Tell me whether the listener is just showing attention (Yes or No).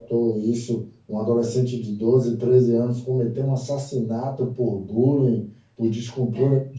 Yes